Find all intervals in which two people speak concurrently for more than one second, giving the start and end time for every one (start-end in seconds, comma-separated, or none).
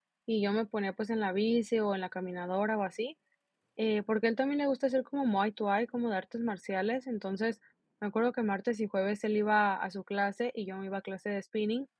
none